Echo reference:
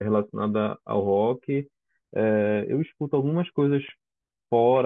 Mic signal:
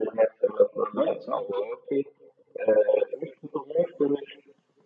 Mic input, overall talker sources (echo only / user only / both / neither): both